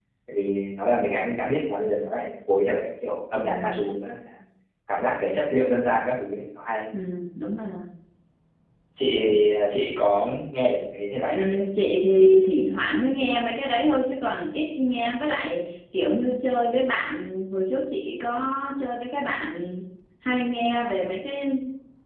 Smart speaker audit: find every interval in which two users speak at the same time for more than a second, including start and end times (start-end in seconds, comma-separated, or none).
none